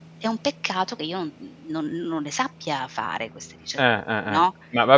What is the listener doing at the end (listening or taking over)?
taking over